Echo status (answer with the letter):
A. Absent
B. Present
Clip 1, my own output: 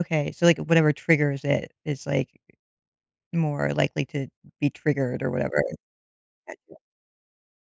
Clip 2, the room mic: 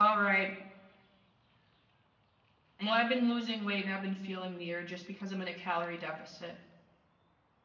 A